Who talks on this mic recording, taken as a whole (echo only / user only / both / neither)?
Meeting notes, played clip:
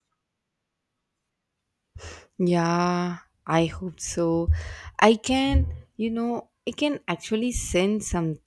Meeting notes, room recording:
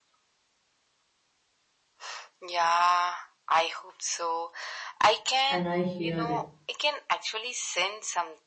both